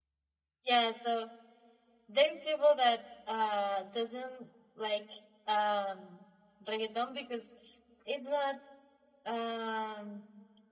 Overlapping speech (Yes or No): No